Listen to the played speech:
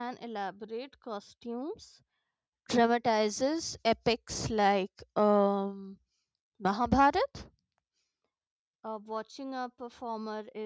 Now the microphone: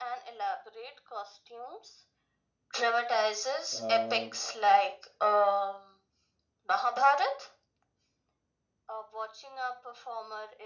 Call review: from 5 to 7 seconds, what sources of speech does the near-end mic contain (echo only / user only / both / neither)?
echo only